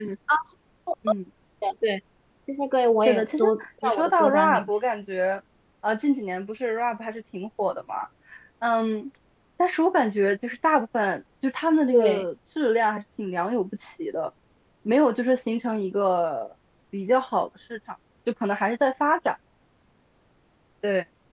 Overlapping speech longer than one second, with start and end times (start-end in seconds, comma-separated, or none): 3.0-4.7